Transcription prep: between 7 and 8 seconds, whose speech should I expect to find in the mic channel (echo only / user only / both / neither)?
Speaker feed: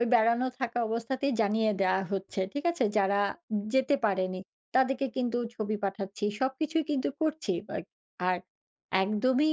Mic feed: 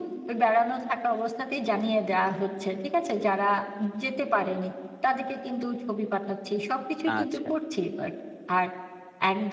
both